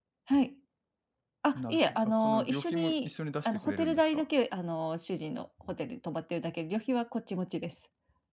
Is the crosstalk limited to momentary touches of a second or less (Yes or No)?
No